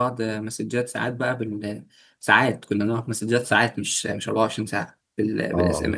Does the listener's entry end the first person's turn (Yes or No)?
No